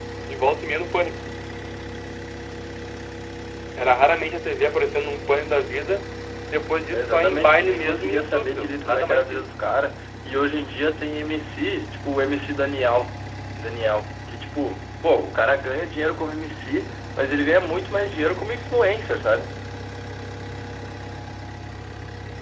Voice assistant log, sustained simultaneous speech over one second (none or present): present